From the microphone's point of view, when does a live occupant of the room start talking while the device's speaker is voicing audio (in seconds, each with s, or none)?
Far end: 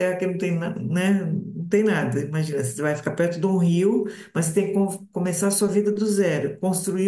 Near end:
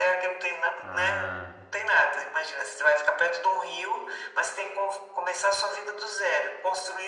0.8 s